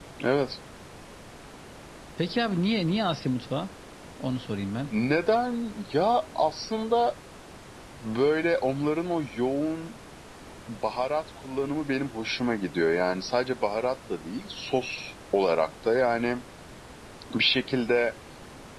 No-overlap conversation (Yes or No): Yes